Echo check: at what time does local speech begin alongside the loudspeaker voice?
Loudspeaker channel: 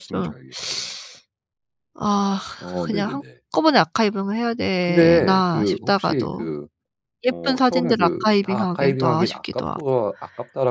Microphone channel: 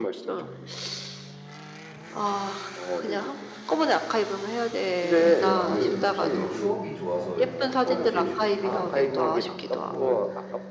5 s

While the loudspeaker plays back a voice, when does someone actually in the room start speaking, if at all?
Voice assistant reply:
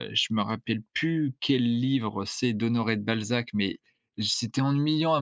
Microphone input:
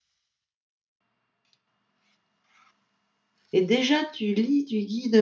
4 s

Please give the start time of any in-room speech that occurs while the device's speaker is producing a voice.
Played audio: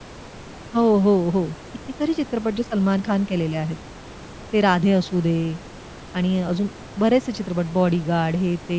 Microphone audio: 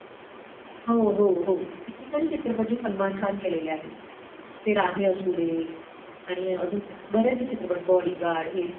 none

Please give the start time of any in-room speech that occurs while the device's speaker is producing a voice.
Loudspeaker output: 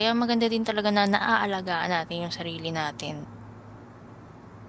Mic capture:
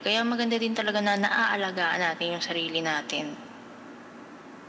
none

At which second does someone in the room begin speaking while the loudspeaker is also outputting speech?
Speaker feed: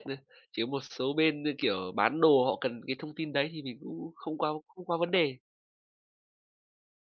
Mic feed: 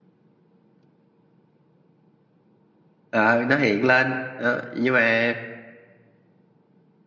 3 s

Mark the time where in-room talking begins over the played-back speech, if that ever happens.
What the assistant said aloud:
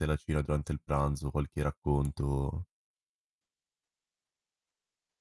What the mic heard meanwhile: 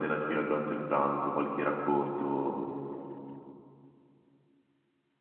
none

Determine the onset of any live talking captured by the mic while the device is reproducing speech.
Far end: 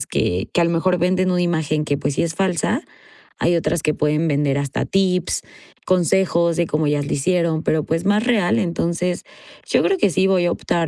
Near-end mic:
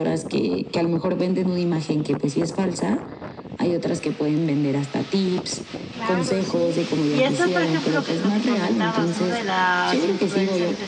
6 s

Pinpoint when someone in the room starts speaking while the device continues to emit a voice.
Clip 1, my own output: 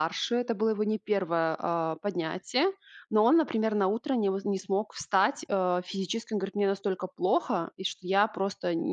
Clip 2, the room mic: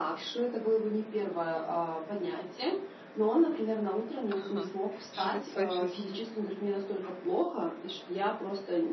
4 s

